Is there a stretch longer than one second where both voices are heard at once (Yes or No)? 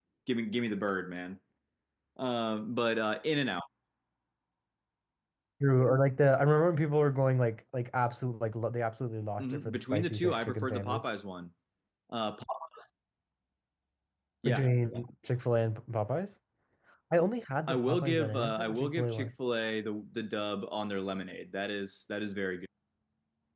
Yes